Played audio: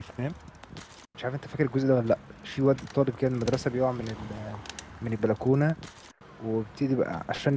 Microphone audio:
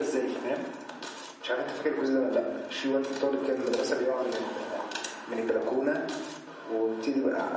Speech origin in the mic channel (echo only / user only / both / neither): echo only